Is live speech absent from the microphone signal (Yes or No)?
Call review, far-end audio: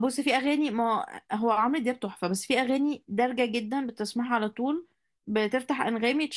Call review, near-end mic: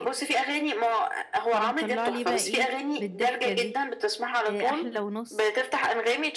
No